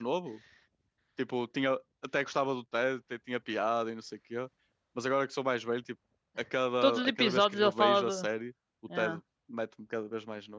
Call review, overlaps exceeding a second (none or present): present